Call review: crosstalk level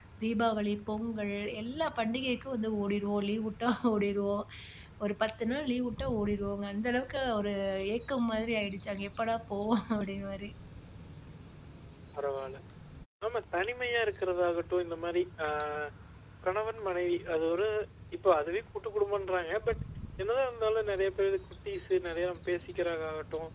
none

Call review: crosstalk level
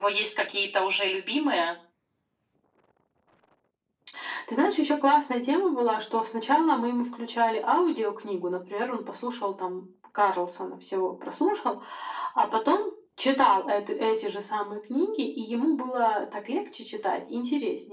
none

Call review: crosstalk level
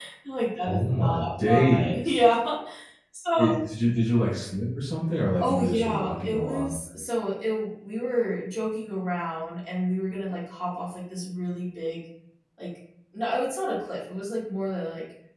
present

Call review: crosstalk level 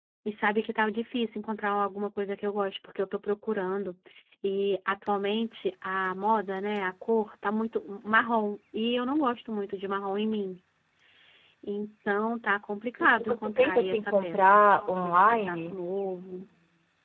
present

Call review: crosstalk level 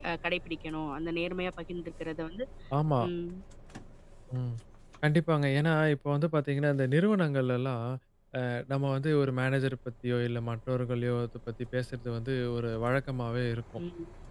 none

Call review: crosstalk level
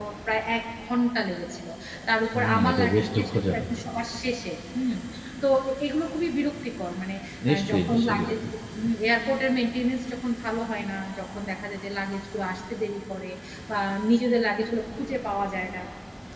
present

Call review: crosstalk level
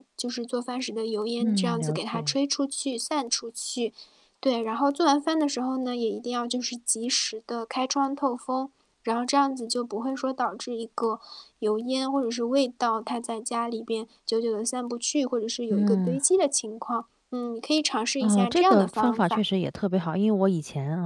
present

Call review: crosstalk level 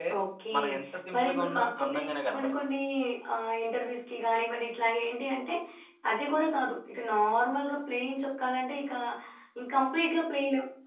present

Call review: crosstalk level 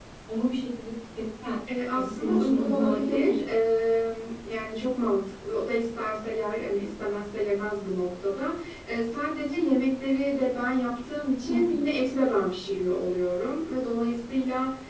present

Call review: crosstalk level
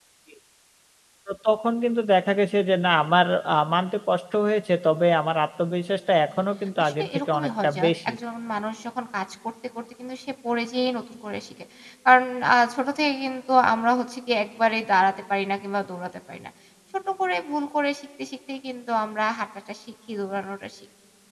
present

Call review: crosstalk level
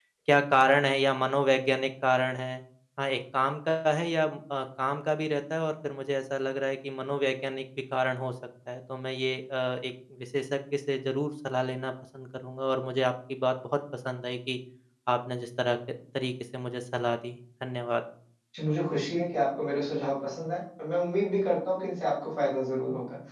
none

